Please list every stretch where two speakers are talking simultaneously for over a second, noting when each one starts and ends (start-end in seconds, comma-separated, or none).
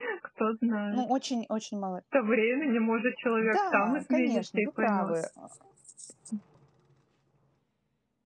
3.4-5.1